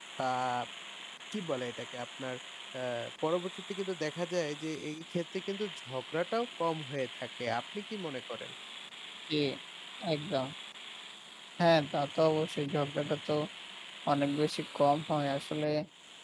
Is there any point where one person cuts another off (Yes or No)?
No